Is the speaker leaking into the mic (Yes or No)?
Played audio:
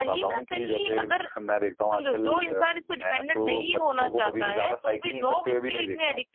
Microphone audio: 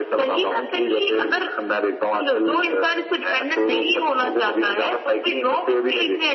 Yes